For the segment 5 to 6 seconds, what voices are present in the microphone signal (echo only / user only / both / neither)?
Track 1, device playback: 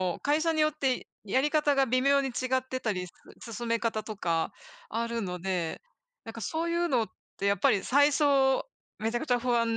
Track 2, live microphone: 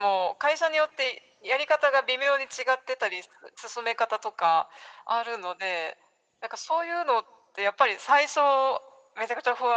echo only